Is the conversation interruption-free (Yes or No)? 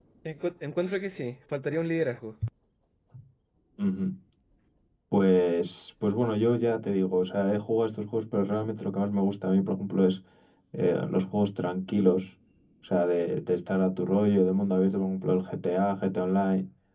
Yes